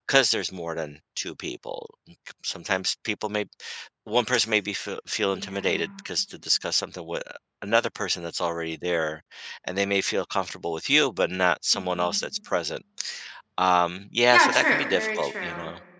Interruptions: present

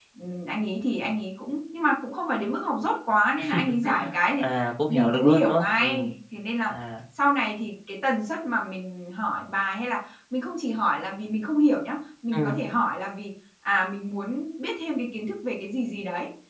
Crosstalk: present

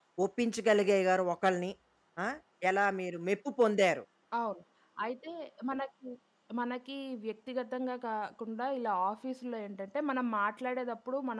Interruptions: none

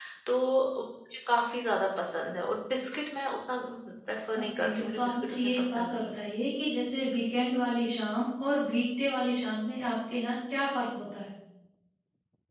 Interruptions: present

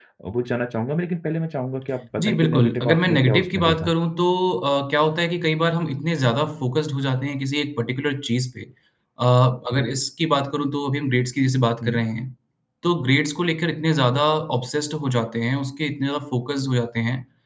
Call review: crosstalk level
present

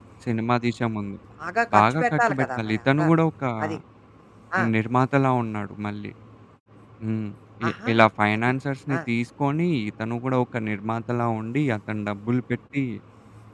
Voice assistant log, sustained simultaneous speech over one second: present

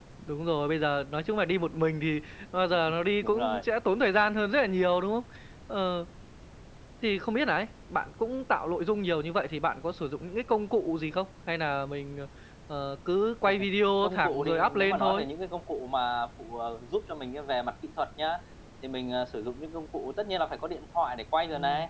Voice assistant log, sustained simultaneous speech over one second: present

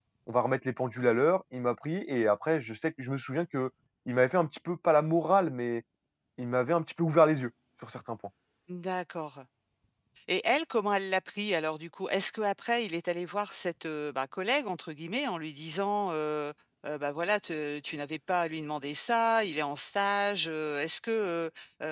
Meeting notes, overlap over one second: none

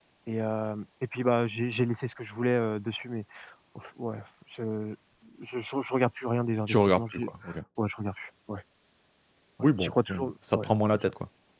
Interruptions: present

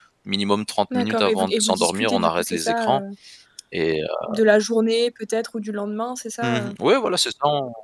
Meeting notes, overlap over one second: present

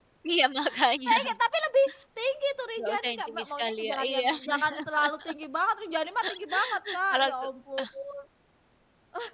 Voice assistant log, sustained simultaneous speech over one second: present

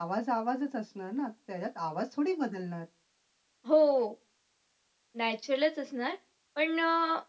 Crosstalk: none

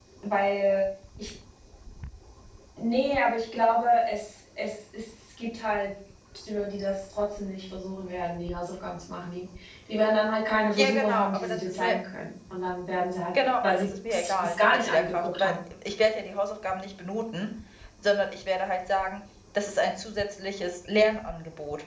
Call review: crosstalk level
present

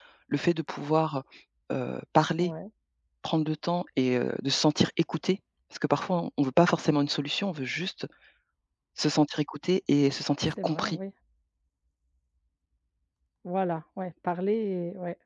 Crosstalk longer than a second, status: none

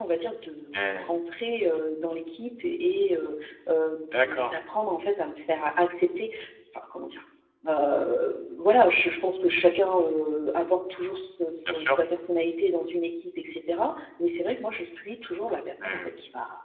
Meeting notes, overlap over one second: none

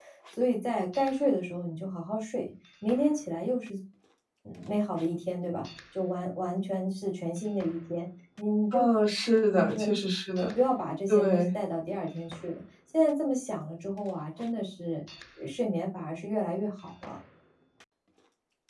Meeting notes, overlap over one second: none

